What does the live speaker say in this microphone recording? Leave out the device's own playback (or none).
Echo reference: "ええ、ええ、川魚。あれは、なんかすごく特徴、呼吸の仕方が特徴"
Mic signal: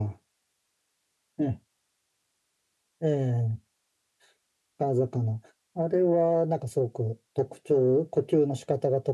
none